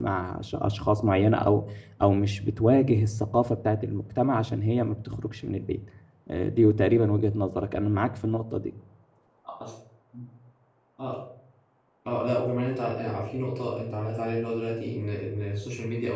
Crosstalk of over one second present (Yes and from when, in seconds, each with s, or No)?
No